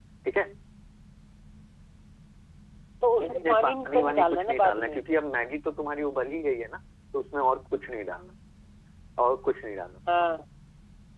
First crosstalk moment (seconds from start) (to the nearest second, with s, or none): 3 s